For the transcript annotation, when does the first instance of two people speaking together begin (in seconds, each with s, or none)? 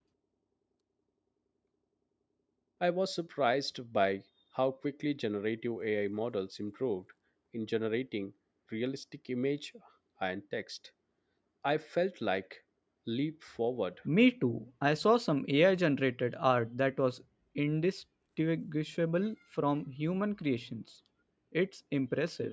none